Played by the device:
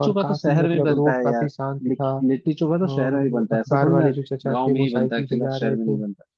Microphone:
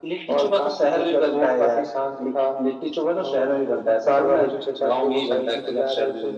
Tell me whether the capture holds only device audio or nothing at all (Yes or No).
Yes